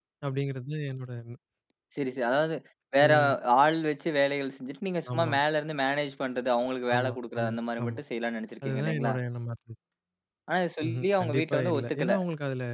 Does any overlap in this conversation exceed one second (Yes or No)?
Yes